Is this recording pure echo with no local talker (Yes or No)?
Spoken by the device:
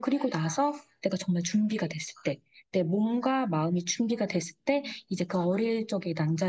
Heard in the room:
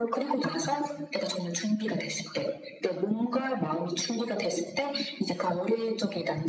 Yes